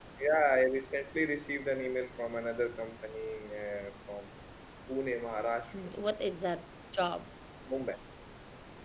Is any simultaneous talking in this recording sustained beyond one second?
No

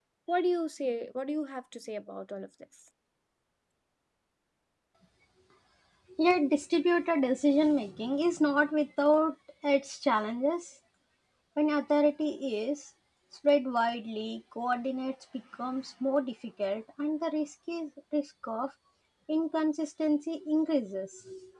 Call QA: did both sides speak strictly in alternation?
Yes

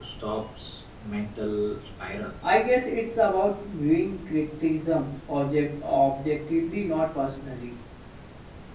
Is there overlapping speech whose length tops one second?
No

